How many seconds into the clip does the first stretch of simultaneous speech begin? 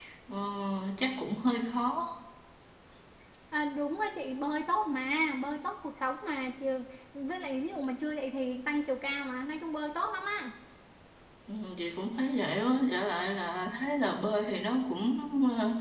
none

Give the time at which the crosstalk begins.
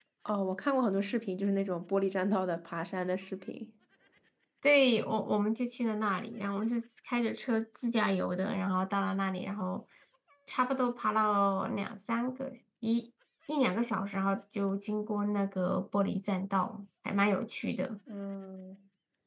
none

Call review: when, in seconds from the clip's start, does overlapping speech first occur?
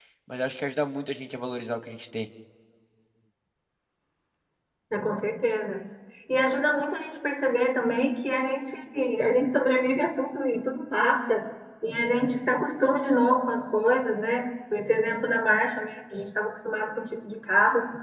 none

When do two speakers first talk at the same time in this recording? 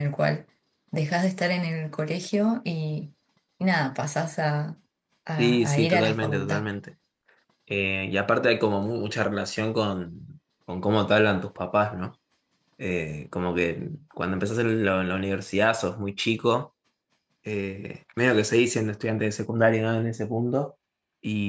5.4 s

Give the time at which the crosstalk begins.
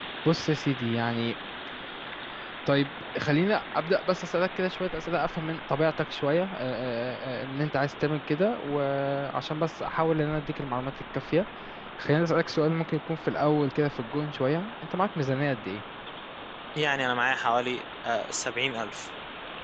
none

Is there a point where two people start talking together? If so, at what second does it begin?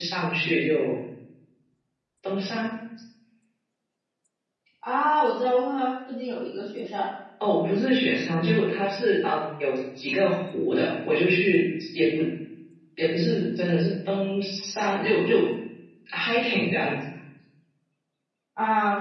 none

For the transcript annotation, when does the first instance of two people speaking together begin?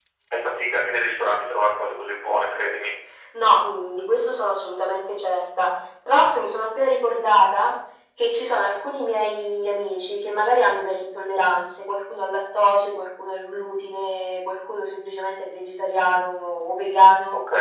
none

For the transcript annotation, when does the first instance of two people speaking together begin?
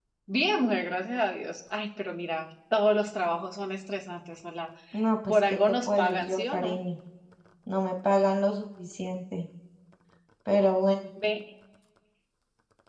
5.3 s

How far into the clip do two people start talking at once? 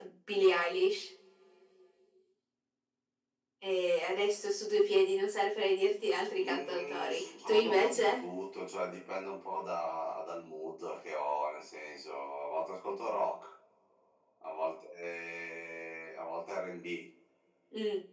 6.3 s

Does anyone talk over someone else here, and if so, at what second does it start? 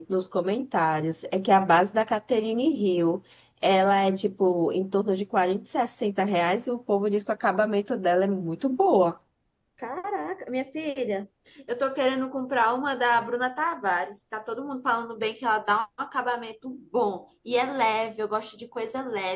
none

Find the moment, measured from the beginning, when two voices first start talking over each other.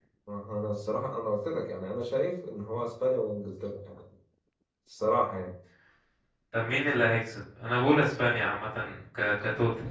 none

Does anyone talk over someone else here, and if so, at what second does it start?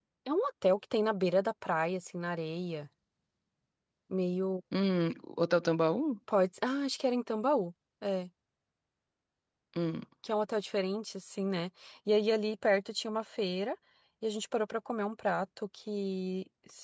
none

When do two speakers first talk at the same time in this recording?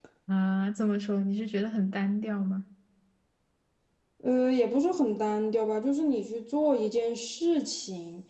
none

